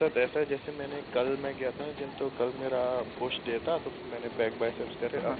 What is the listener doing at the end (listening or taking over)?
listening